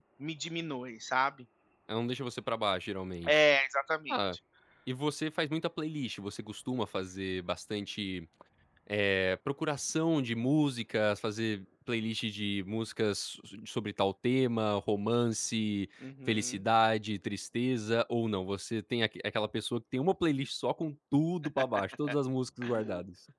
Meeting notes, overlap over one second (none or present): none